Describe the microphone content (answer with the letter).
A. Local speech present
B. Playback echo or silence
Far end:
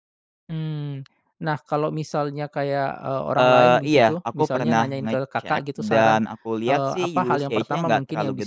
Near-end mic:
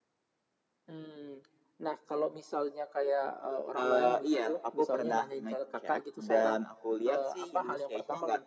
B